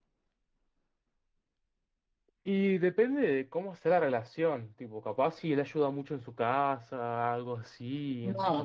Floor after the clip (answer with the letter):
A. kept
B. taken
B